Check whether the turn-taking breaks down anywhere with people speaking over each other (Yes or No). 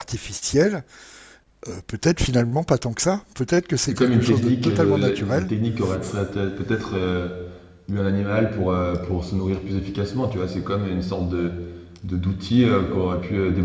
Yes